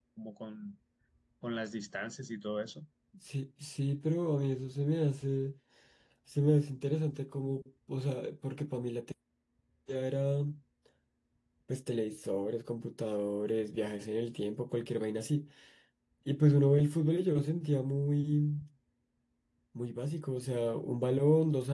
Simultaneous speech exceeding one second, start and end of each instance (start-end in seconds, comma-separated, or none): none